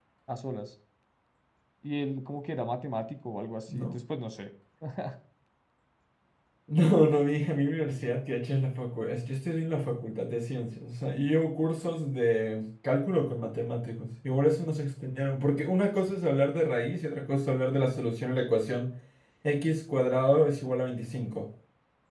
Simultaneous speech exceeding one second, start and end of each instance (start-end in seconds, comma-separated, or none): none